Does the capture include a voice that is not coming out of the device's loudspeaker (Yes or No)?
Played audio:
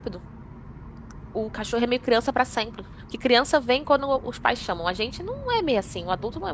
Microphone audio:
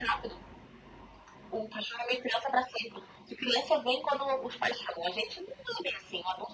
No